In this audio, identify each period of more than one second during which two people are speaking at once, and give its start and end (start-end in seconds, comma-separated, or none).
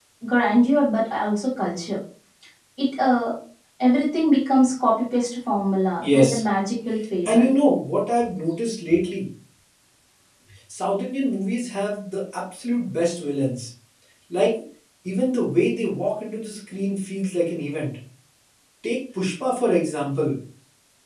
none